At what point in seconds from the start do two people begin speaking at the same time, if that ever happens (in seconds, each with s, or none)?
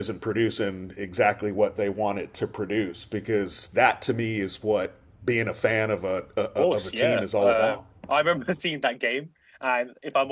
6.6 s